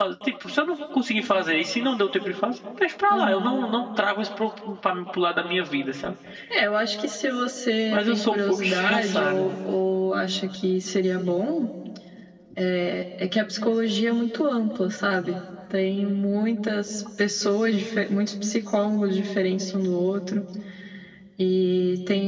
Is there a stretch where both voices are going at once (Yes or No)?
Yes